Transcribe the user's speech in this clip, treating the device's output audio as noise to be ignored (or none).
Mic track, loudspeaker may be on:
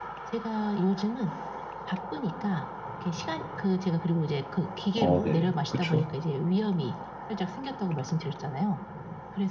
아 네. 그쵸.